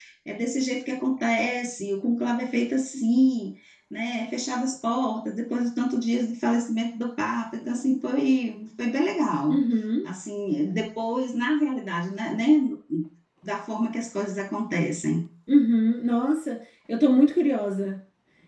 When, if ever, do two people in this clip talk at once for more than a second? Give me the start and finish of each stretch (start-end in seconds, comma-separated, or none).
none